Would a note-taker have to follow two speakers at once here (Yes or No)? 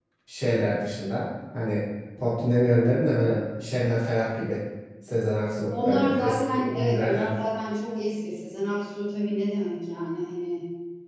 Yes